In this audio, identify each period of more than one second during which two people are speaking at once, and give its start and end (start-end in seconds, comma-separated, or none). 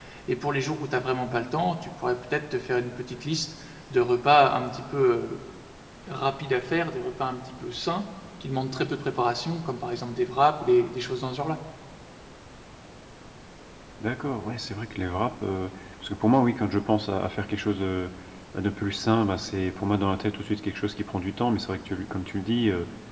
none